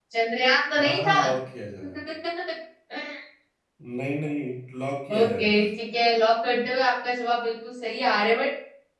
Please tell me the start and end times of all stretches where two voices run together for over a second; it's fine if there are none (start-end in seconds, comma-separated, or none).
none